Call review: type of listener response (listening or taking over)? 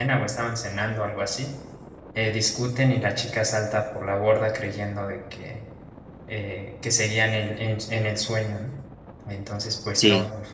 listening